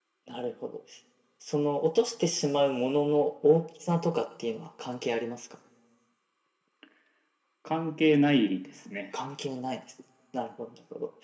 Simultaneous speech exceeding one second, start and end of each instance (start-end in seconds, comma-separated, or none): none